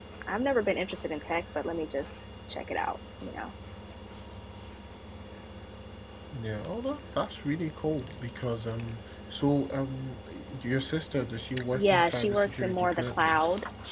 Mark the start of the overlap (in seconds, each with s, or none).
11.7 s